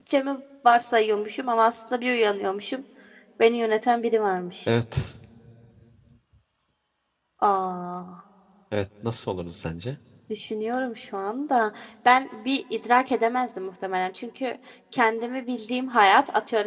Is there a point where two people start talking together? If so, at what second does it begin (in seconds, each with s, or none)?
none